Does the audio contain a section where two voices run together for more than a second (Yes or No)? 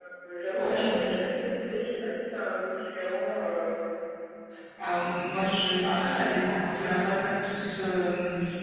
No